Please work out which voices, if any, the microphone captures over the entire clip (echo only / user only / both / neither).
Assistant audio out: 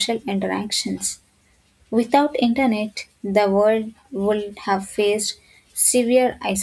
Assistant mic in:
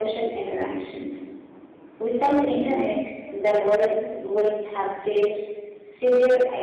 both